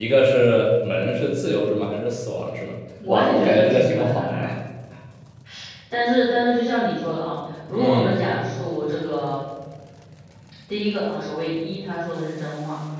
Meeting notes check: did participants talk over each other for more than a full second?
Yes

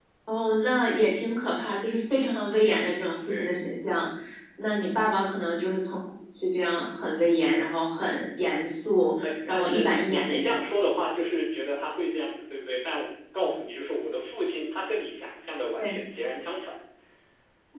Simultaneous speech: Yes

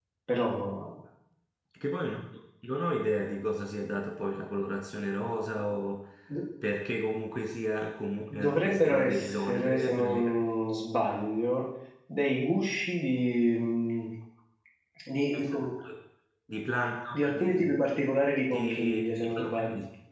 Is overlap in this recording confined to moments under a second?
No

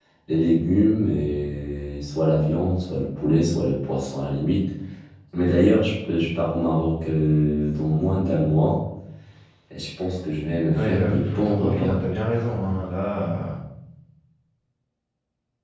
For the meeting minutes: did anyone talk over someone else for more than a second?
Yes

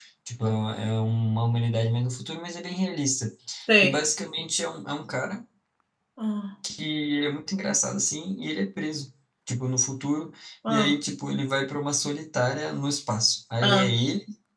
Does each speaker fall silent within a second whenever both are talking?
Yes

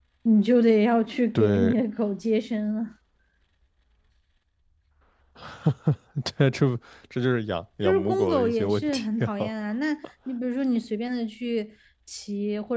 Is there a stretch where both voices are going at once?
Yes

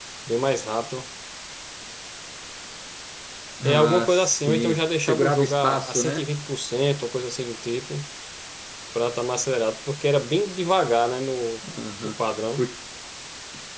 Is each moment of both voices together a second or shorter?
No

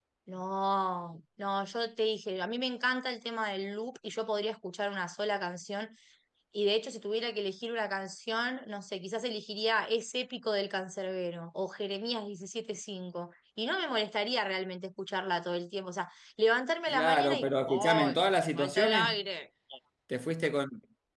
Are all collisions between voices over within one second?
No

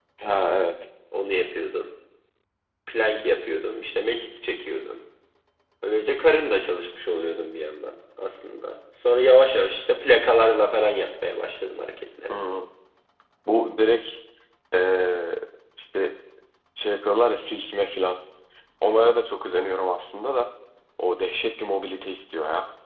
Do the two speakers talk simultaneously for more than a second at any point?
No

